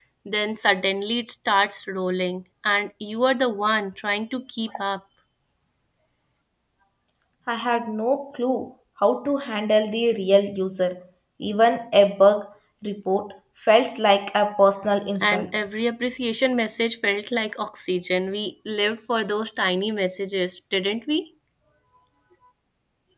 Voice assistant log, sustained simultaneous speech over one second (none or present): none